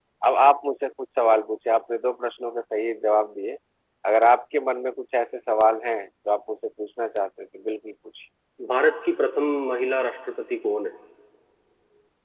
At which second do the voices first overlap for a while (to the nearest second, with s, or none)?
none